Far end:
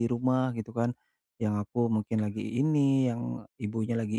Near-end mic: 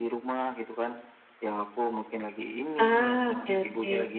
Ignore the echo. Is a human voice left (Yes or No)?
Yes